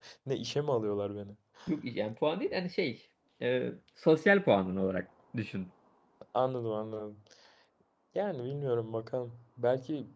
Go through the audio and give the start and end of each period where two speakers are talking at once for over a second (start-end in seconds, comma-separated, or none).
none